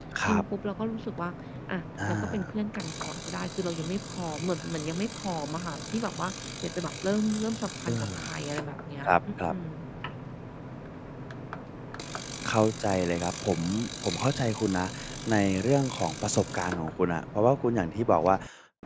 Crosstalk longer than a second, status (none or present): none